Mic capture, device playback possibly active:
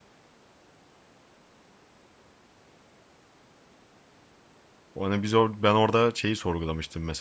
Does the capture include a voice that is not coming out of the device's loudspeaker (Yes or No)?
Yes